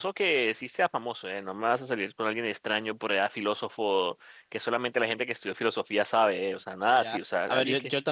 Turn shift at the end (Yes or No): Yes